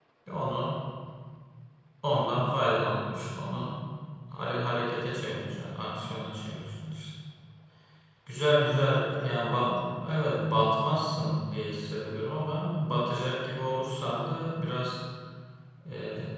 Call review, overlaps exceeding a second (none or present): present